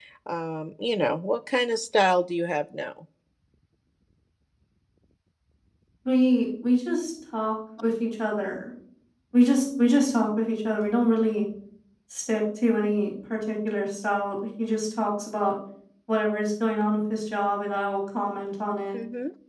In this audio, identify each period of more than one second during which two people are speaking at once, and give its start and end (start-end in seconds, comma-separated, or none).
none